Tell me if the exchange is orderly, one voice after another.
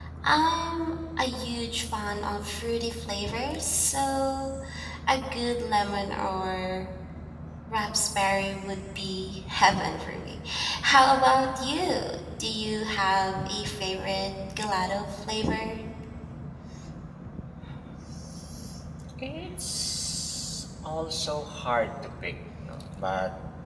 Yes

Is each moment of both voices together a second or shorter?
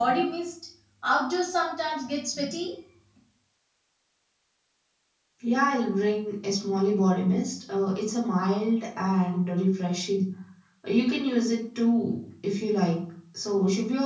Yes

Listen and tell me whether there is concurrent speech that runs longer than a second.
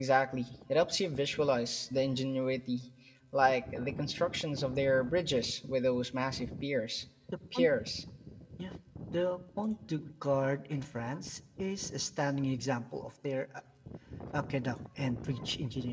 No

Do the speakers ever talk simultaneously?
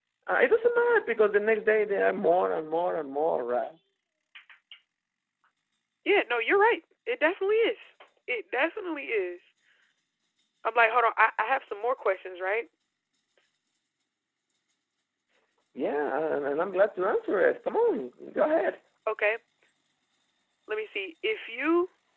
No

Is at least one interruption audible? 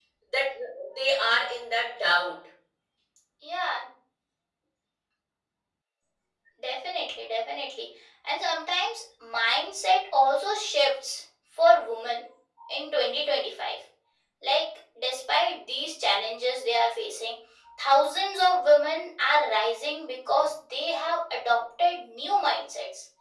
No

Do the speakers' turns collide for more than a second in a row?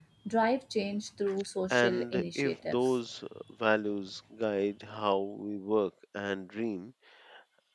Yes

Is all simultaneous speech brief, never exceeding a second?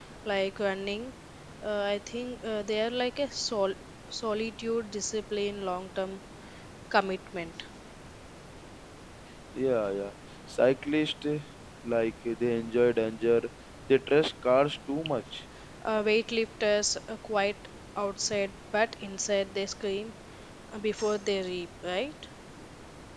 Yes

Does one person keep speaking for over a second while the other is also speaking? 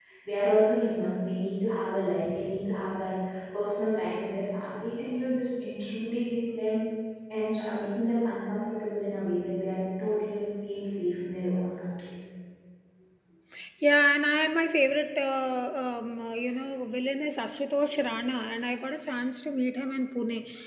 No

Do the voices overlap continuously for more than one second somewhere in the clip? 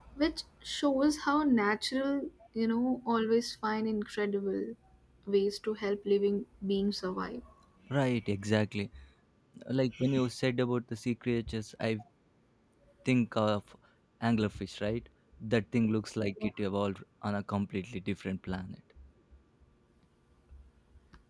No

